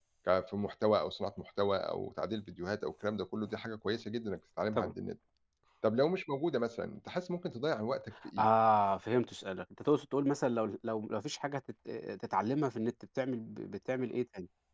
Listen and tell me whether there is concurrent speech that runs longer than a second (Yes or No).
No